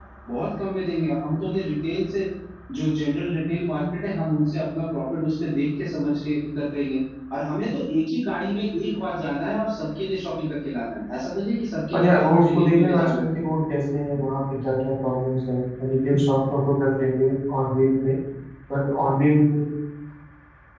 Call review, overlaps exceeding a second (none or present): present